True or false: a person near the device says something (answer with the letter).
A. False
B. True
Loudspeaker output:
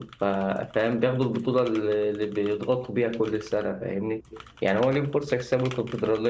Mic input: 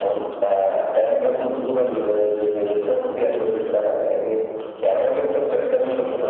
A